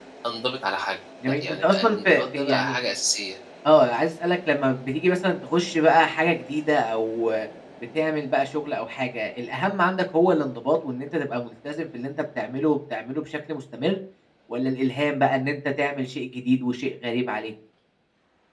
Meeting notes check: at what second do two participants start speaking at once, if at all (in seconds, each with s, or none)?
1.3 s